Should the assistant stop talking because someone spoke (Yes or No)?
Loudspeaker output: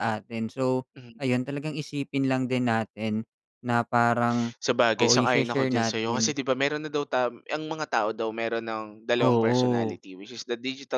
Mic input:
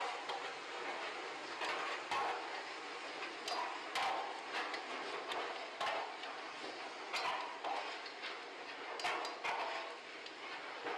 No